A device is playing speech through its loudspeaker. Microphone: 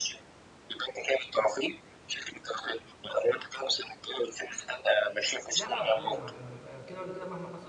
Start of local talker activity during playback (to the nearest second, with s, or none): 6 s